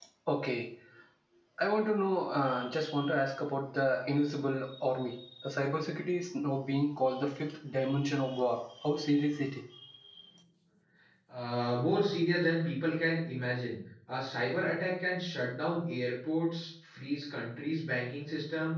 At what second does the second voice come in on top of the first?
none

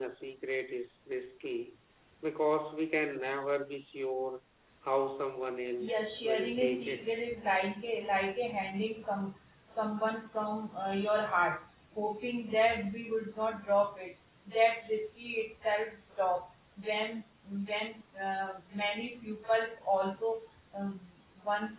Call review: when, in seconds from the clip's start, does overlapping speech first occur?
5.8 s

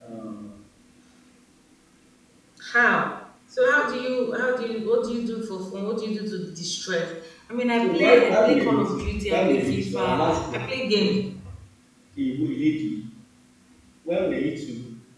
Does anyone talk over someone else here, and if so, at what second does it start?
7.8 s

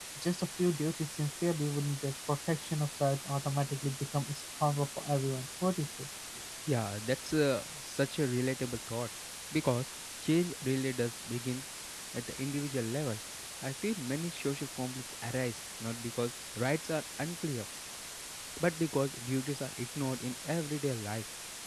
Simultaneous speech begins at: none

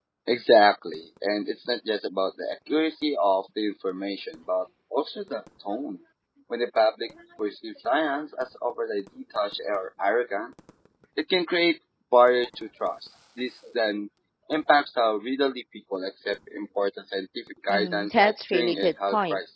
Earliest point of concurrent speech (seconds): 17.7 s

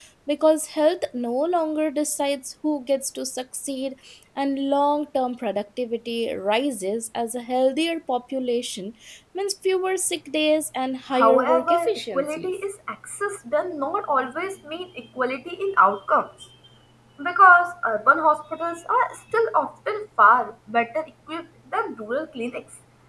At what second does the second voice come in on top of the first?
11.1 s

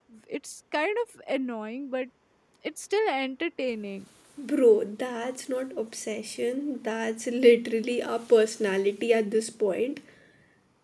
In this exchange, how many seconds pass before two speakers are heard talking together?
none

